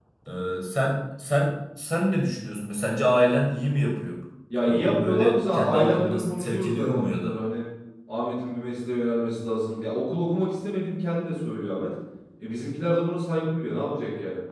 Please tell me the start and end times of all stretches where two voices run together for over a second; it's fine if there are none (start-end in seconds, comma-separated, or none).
4.7-7.3